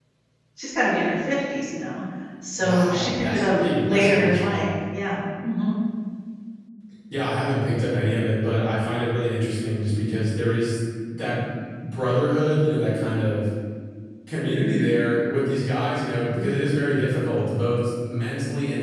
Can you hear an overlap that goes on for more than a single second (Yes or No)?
Yes